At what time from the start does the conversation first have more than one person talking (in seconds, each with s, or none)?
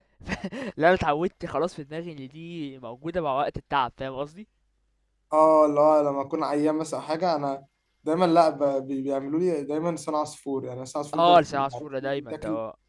11.1 s